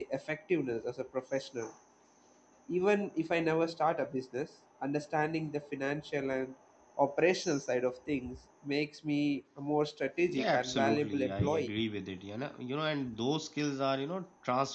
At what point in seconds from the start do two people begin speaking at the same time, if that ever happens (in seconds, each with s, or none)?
10.3 s